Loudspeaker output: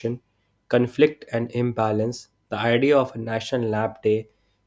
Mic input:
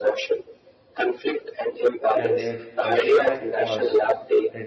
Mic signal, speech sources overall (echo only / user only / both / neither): both